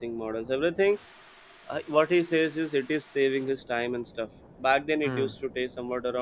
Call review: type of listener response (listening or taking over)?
listening